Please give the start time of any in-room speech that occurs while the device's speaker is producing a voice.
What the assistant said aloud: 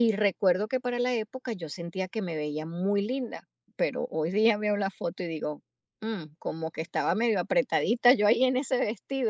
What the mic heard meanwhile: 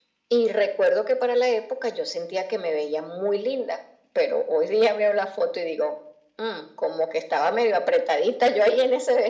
none

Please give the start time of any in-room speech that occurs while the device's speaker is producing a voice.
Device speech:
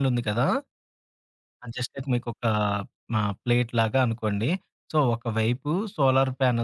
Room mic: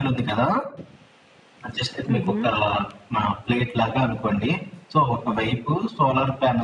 2.1 s

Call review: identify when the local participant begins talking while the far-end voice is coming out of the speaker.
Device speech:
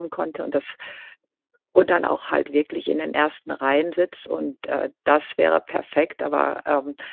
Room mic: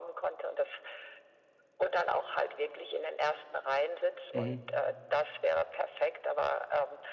4.3 s

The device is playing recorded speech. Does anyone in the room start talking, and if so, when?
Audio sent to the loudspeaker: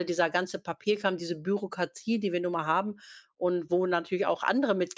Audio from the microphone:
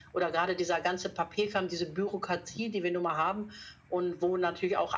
none

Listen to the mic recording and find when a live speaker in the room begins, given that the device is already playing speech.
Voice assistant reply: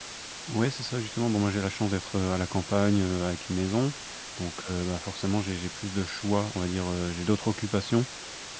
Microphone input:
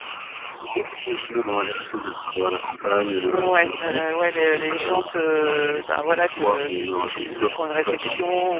3.2 s

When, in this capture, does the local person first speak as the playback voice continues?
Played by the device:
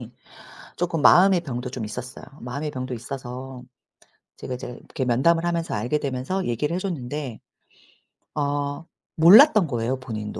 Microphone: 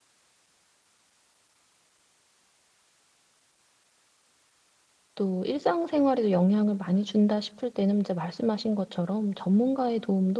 5.1 s

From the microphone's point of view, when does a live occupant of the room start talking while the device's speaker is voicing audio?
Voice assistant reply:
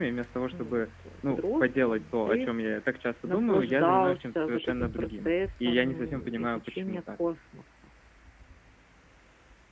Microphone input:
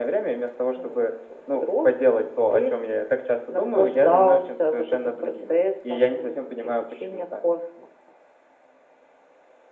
none

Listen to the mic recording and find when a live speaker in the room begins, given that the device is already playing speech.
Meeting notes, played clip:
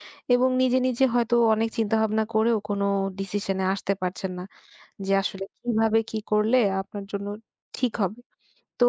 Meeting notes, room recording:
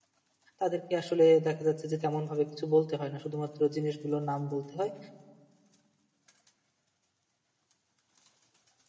0.6 s

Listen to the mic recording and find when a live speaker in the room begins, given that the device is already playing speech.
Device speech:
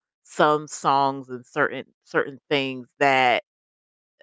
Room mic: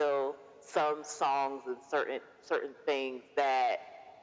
none

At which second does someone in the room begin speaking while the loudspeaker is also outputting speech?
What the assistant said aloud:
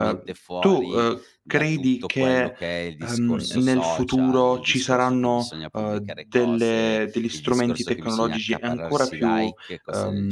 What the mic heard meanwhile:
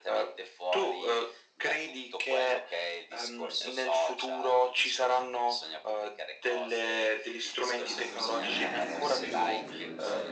7.8 s

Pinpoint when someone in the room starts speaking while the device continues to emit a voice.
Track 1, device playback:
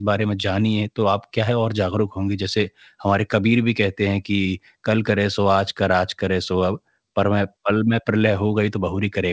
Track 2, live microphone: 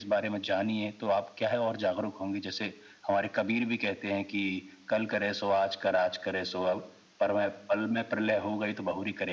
none

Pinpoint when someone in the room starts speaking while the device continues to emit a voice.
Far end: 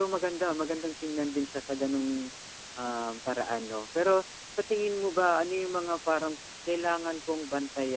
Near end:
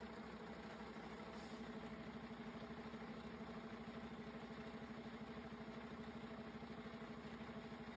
none

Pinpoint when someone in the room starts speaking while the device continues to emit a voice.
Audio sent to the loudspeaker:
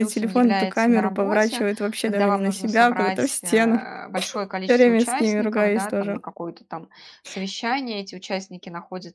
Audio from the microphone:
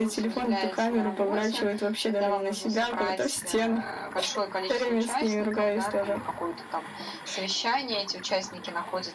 none

